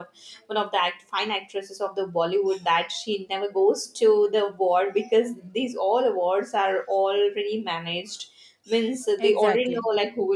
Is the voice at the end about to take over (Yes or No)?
No